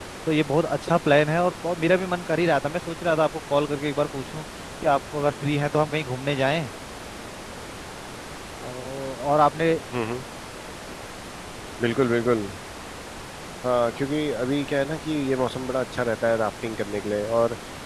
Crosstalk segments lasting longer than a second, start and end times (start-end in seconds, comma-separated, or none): none